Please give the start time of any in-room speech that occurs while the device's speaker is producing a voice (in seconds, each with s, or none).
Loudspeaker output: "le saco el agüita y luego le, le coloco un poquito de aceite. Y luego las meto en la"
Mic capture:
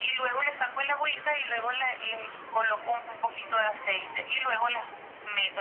none